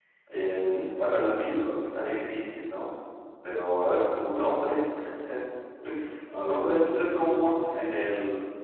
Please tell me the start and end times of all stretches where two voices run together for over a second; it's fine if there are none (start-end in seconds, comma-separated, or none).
6.3-7.6